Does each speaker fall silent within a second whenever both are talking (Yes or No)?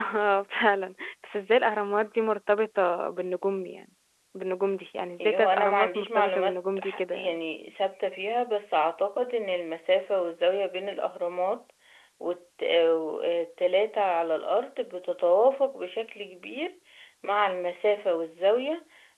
No